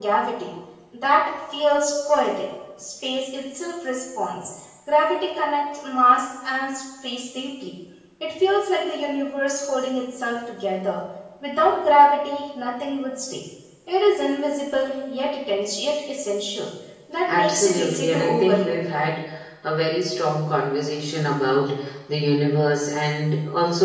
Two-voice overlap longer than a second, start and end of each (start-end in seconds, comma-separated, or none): 17.3-18.8